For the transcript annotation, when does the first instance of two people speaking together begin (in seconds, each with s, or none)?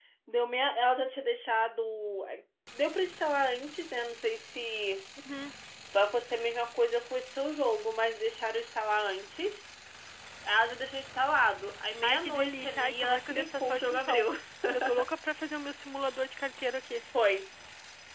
12.0 s